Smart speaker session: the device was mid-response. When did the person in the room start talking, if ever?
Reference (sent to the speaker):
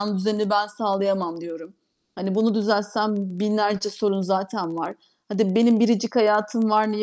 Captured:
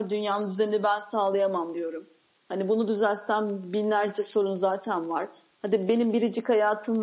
none

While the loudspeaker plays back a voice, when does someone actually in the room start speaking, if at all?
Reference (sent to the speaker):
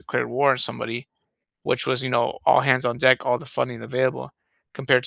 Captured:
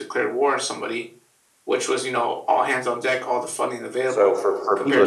4.1 s

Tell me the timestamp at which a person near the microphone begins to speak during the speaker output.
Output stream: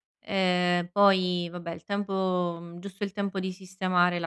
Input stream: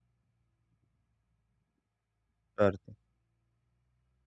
2.6 s

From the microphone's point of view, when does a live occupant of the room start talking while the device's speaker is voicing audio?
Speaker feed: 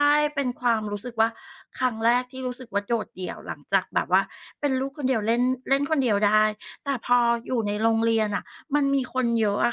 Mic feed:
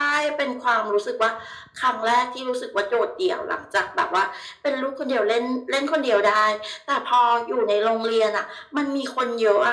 none

